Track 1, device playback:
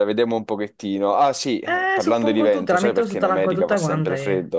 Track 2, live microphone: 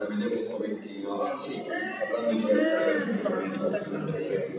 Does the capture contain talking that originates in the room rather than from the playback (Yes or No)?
Yes